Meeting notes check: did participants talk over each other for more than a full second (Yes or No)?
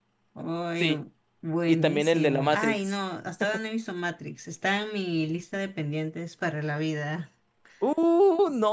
Yes